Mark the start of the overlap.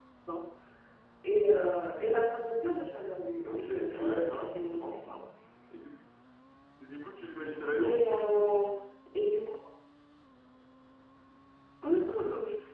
3.4 s

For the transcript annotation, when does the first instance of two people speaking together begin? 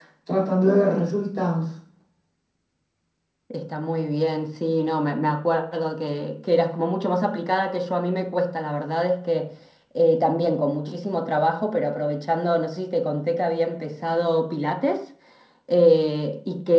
none

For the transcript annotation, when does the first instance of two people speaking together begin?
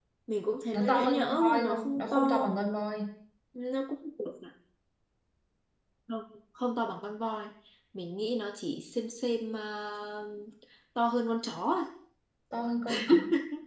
0.7 s

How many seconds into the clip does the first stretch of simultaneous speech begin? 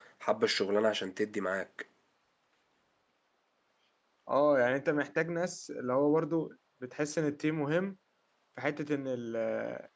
none

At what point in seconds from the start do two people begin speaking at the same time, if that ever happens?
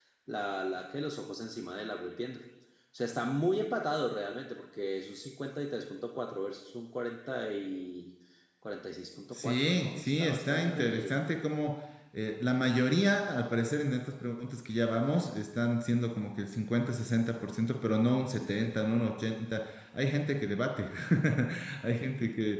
9.3 s

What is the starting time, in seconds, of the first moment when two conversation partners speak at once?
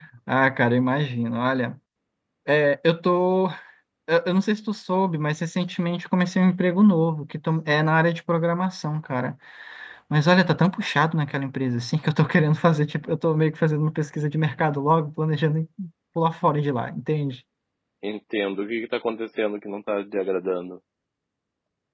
none

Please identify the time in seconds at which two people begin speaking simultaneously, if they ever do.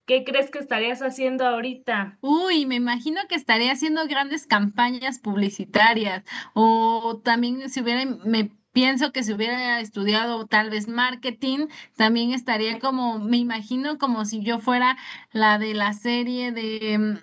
none

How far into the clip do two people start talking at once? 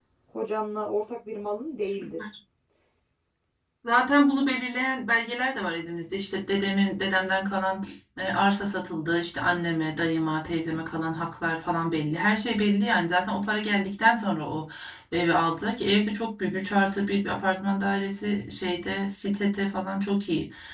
none

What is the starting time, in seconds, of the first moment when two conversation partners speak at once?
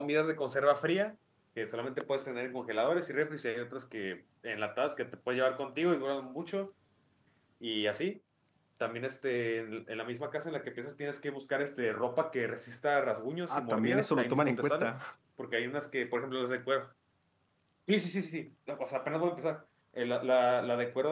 13.5 s

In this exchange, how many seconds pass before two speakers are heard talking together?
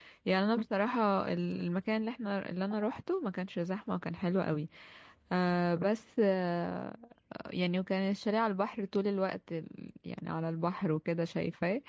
none

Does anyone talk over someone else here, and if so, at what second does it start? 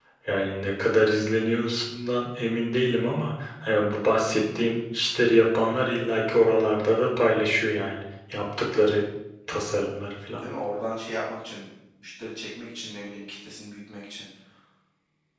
none

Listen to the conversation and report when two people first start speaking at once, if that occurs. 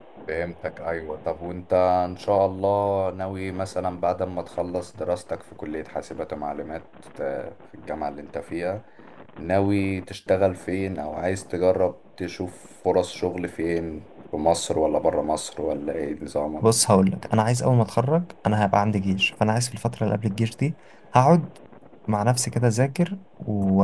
none

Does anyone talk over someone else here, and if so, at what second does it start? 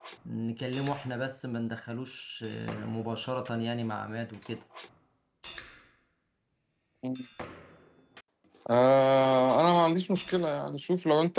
none

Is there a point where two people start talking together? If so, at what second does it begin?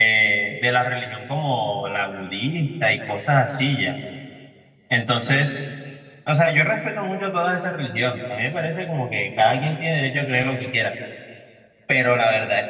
none

